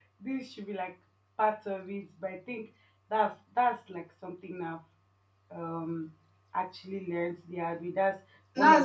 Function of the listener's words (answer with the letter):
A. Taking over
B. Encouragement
A